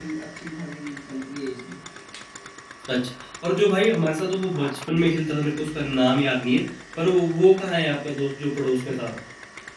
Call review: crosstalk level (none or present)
none